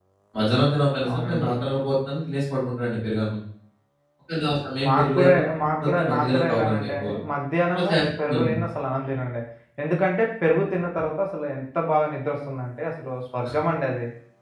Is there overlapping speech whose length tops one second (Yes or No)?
Yes